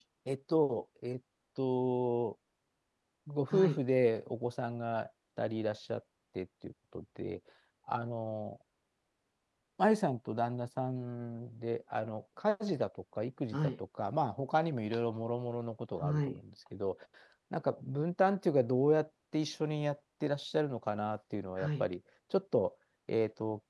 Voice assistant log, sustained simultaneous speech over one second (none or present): none